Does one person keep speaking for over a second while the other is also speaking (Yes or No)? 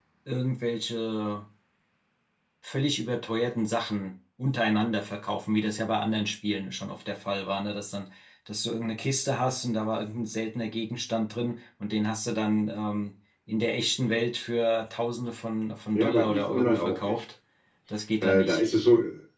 Yes